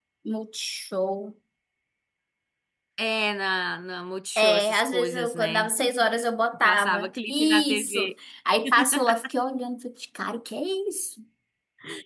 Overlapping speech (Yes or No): Yes